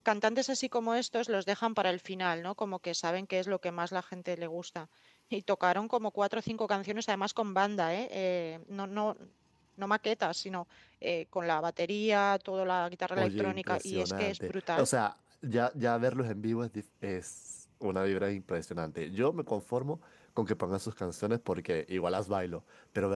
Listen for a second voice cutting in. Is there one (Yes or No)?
Yes